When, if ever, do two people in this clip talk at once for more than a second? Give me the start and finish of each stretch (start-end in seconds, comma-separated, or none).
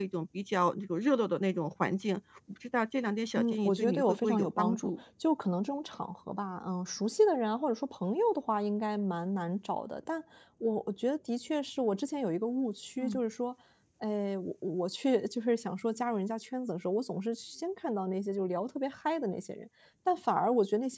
3.4-4.9